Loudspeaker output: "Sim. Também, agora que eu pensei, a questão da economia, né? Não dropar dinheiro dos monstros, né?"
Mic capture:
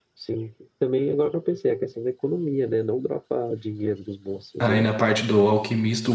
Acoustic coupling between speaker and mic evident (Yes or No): Yes